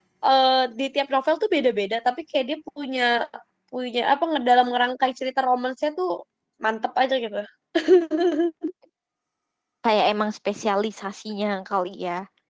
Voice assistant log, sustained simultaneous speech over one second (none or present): none